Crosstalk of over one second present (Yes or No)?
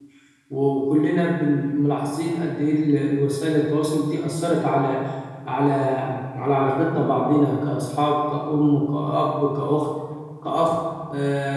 No